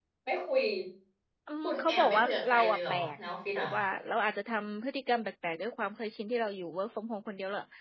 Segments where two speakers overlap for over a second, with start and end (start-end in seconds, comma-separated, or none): 1.6-3.1